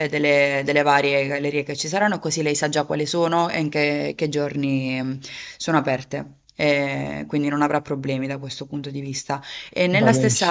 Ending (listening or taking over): listening